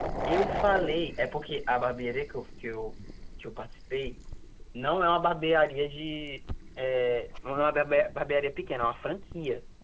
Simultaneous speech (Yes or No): No